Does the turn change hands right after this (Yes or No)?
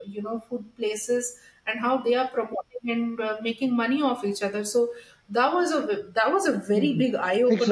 Yes